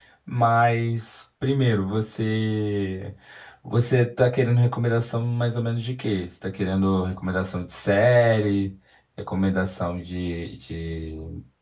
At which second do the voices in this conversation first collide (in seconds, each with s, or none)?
none